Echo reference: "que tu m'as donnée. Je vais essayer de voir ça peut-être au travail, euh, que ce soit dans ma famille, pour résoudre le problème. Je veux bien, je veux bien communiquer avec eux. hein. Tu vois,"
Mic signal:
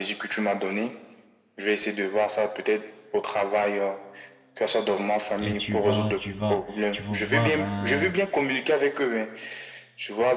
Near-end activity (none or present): present